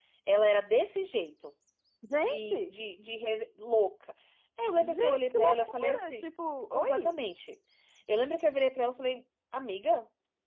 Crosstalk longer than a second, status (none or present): present